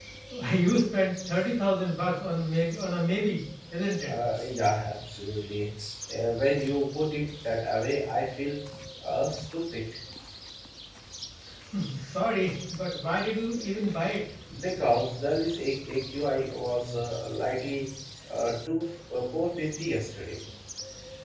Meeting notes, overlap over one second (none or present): none